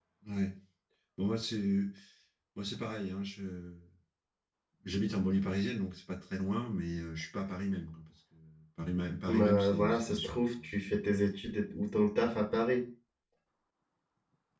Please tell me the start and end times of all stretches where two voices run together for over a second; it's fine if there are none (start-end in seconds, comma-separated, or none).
9.3-10.7